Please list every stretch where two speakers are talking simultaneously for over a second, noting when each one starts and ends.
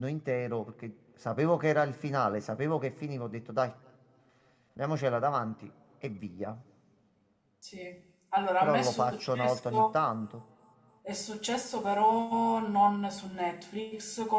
8.6-9.9

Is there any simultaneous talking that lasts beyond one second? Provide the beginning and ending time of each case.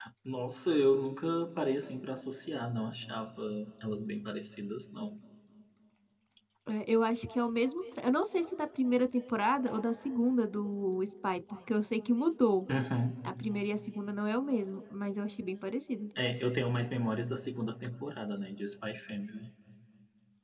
none

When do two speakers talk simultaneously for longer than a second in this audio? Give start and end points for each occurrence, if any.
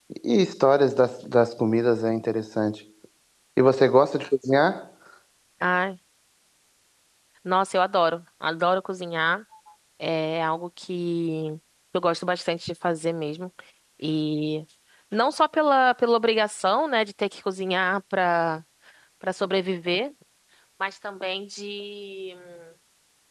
none

